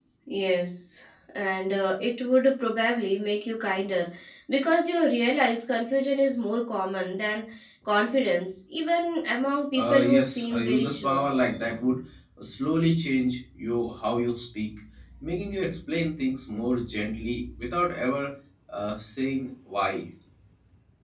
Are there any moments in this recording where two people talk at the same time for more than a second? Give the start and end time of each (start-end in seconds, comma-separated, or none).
9.8-11.2